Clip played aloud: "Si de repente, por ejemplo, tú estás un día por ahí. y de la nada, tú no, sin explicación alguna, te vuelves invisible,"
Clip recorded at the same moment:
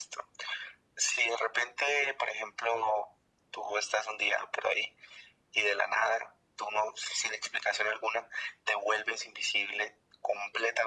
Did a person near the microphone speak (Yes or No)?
No